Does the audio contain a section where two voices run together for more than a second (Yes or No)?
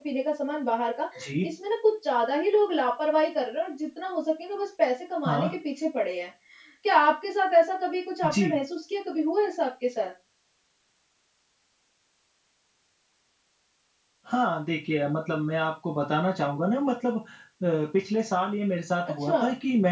No